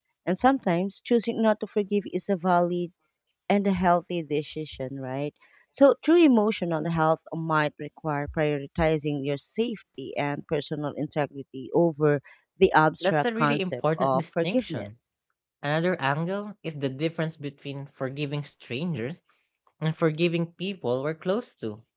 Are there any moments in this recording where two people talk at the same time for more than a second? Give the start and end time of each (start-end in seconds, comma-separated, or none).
13.0-14.9